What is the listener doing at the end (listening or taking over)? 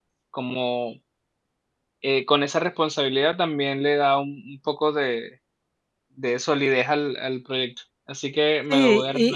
taking over